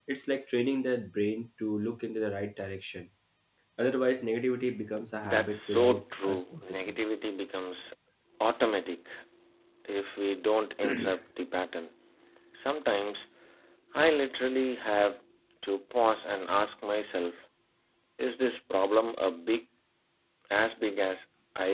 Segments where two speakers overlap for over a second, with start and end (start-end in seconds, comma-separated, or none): 5.2-7.0